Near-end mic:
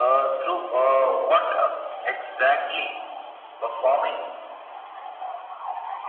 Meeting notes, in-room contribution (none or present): none